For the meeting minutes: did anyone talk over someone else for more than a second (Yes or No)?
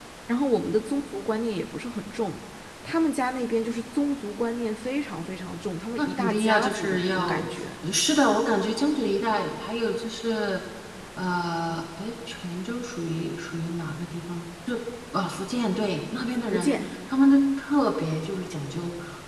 Yes